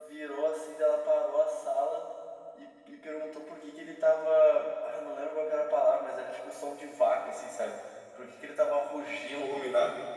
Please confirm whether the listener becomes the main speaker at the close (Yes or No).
No